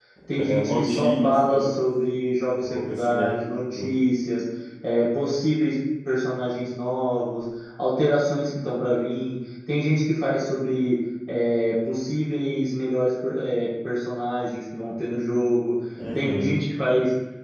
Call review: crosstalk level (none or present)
present